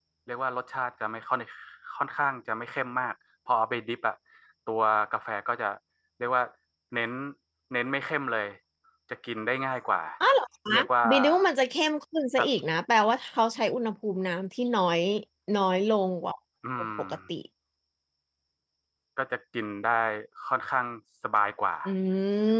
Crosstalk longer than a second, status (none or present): none